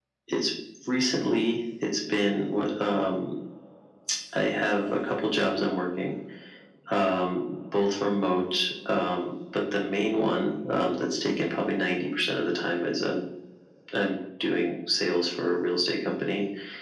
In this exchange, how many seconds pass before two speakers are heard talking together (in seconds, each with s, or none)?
none